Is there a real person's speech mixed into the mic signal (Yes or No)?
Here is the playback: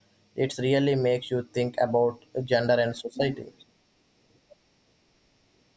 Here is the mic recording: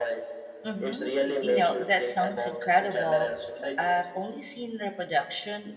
Yes